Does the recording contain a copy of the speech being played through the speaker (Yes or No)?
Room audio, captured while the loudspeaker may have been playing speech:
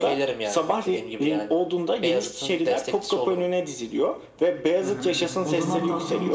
Yes